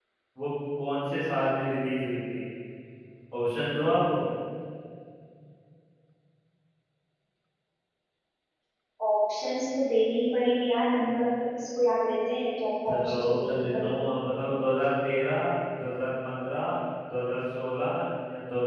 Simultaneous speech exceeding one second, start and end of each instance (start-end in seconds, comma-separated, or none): 12.9-14.1